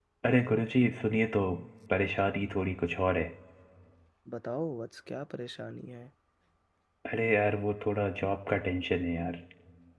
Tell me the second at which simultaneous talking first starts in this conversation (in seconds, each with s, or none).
none